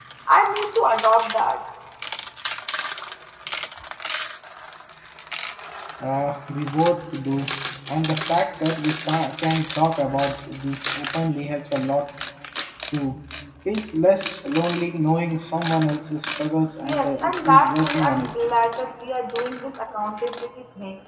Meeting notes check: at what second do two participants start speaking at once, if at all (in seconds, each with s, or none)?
16.8 s